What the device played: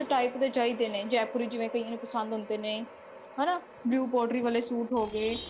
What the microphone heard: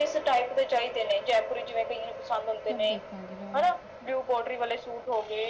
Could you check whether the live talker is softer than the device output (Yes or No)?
Yes